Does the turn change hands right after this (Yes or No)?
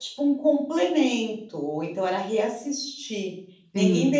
No